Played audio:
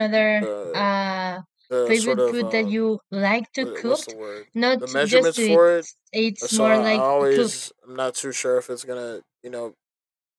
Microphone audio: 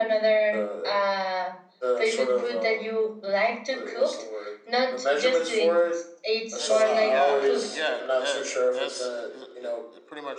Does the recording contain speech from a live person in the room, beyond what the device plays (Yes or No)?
Yes